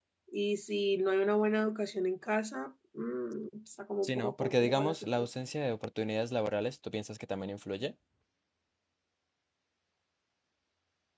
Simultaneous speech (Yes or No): Yes